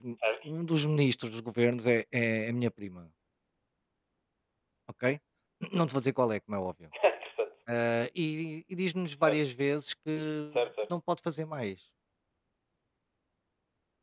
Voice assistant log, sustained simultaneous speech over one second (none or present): none